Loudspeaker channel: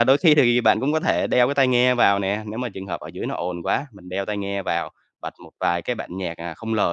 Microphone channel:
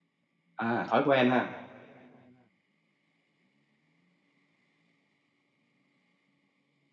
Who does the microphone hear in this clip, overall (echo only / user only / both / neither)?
user only